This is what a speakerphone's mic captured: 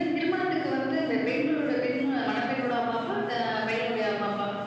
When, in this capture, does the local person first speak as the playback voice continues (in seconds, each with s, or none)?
none